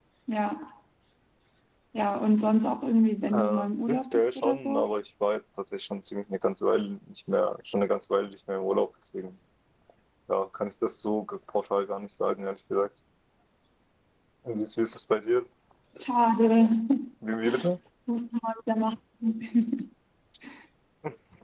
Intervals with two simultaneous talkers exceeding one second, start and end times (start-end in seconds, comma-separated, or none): 3.3-4.8